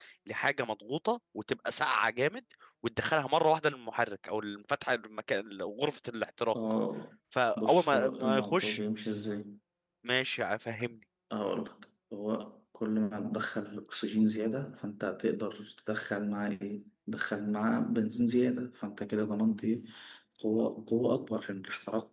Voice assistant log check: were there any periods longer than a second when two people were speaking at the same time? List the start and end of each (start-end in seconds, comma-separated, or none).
7.6-8.8